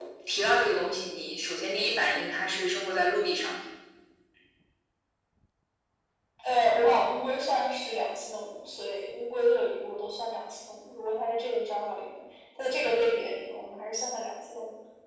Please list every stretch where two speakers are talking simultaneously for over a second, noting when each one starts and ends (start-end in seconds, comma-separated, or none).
none